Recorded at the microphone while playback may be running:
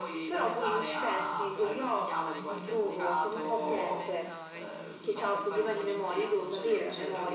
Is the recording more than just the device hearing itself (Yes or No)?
Yes